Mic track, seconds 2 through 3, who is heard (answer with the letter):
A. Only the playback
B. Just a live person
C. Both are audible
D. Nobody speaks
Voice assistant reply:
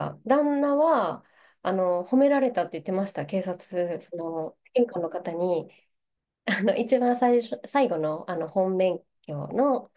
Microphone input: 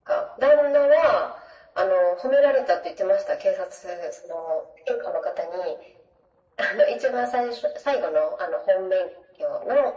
A